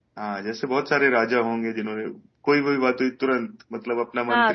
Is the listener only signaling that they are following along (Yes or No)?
No